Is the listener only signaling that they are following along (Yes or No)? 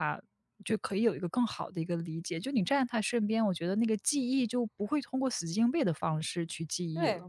No